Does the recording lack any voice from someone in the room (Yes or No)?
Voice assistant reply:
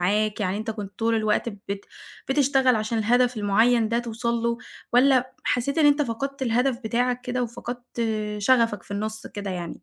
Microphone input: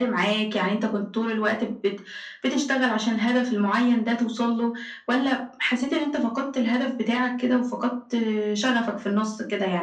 Yes